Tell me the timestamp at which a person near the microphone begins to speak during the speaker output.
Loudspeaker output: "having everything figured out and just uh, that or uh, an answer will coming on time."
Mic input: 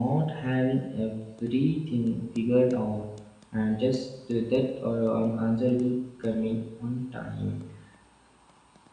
none

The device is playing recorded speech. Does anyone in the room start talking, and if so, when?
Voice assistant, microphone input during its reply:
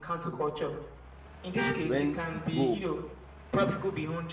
1.8 s

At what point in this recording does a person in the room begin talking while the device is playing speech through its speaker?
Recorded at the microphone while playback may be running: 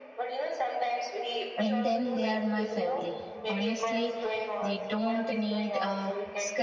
1.6 s

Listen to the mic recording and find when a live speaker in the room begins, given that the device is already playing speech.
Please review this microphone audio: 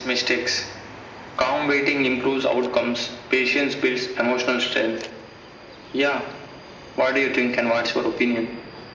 none

